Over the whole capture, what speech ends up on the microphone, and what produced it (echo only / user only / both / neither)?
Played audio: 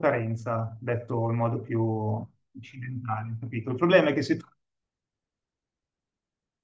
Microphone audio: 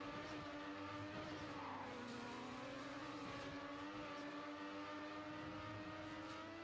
neither